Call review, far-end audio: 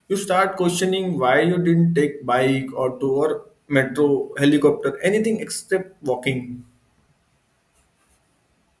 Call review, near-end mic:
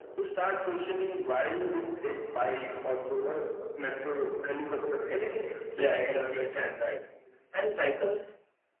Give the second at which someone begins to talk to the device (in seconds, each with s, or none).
5.7 s